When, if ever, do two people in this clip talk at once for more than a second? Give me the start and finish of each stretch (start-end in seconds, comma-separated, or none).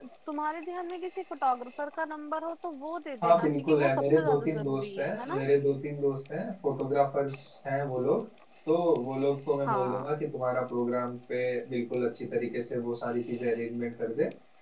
3.2-5.4